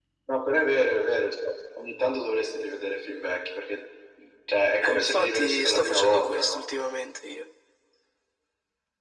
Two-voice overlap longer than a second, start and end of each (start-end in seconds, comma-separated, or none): 4.8-6.6